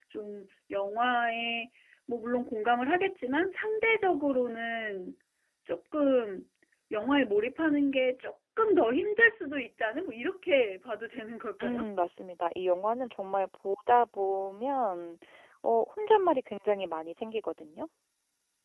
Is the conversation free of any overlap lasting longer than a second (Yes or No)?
Yes